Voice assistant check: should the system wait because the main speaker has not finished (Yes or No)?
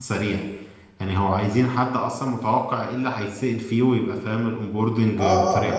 No